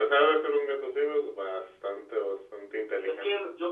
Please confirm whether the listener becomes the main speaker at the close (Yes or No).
Yes